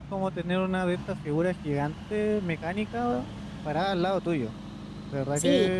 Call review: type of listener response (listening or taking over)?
listening